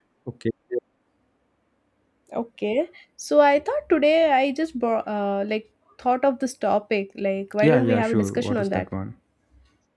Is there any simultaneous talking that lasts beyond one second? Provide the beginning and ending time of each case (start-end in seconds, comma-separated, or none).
7.6-8.8